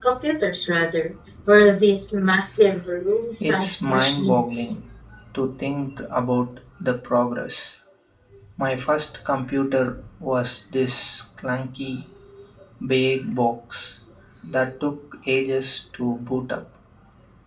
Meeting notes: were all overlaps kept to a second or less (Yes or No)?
No